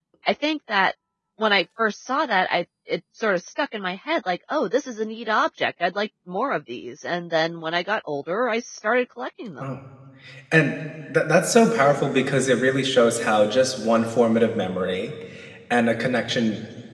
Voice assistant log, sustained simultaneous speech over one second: none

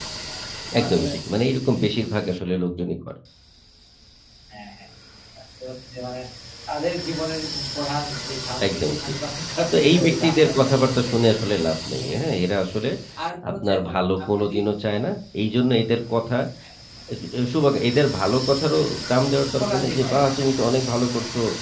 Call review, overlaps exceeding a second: present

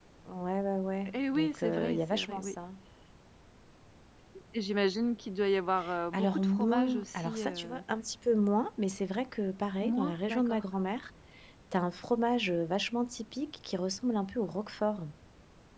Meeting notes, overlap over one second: present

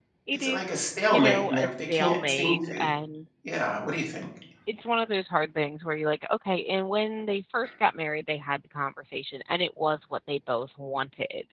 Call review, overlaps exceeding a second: present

